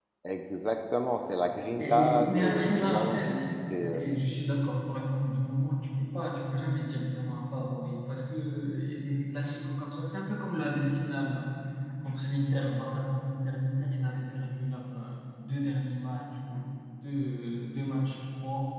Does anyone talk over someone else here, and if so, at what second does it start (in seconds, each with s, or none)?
1.8 s